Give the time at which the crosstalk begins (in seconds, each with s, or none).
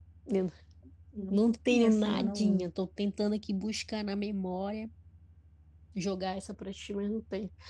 1.3 s